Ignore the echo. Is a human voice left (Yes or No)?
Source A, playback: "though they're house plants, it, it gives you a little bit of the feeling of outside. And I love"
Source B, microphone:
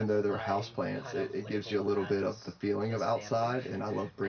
Yes